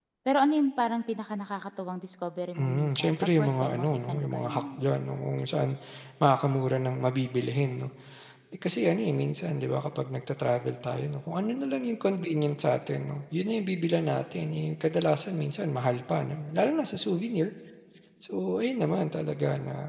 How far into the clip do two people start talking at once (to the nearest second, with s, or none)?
3 s